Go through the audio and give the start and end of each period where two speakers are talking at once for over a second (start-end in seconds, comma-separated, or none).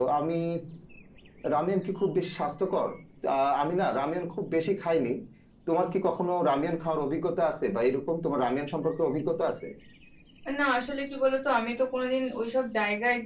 none